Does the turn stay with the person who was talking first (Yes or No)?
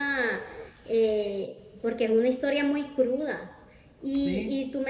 Yes